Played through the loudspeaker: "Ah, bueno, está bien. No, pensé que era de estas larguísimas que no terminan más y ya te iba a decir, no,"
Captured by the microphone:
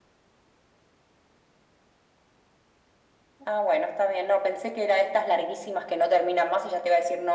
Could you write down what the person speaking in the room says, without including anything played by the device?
none

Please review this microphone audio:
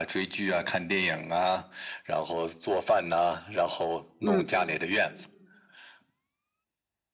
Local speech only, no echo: 嗯

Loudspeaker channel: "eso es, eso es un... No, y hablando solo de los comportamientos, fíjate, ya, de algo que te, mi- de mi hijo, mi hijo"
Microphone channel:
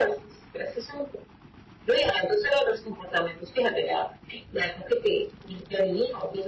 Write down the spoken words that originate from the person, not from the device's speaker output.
none

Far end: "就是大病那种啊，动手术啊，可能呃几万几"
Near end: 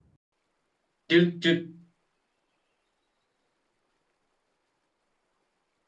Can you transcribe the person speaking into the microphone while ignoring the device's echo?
就就

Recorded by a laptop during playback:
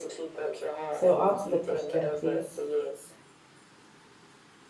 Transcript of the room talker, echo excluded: So answer the question, please.

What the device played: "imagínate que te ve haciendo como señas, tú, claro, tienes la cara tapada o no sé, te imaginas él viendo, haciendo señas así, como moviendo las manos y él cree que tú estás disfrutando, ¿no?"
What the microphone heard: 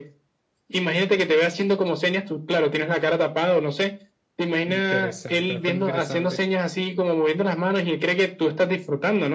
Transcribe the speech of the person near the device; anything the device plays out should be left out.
Interesante, bastante interesante.

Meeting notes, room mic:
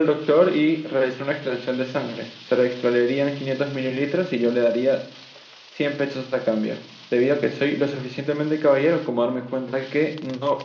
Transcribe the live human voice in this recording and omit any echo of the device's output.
none

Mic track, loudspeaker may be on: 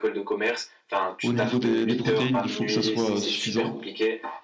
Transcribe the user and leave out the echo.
au niveau des, des protéines, il faut que ça soit euh, suffisant.

